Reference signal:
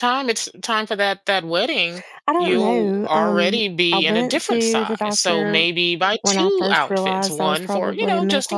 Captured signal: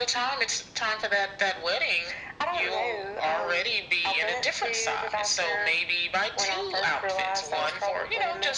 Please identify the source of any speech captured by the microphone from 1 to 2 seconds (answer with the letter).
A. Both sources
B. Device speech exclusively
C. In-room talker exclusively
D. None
B